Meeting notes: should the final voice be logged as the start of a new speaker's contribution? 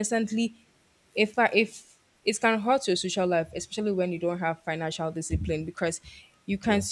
No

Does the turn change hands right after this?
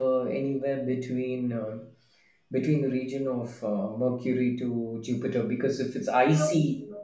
Yes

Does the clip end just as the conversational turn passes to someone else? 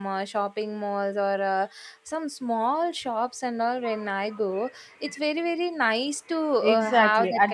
Yes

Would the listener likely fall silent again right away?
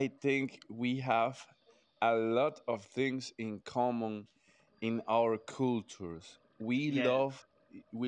Yes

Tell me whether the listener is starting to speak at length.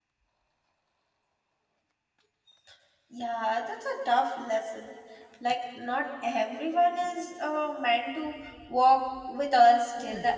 Yes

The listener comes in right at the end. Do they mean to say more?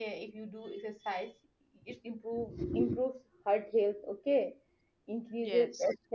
No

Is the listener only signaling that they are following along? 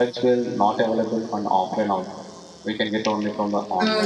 No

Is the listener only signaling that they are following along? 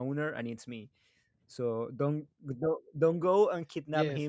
No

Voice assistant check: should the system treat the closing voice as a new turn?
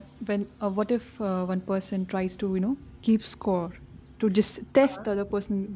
No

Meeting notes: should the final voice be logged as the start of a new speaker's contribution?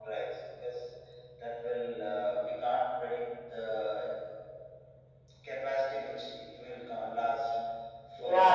Yes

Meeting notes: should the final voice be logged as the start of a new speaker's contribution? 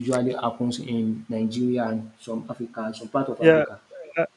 Yes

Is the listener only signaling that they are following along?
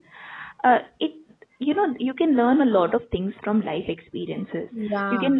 Yes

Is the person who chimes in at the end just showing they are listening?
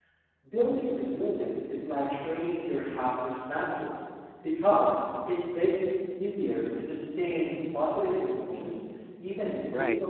No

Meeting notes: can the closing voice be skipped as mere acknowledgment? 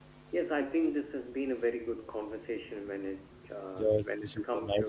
No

